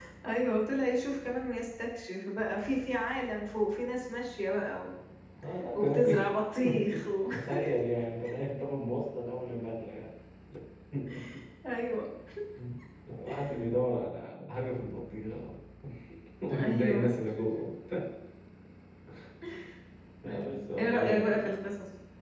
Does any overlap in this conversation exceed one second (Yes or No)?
Yes